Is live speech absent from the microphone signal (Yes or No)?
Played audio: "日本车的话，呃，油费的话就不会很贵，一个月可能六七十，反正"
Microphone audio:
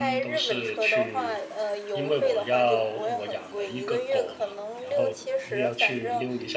No